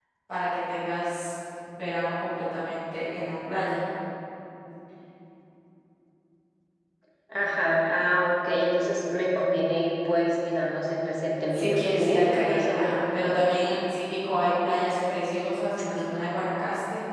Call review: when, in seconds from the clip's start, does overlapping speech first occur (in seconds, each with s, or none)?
11.5 s